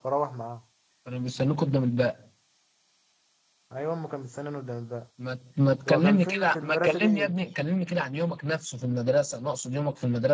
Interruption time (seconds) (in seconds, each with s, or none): 5.9 s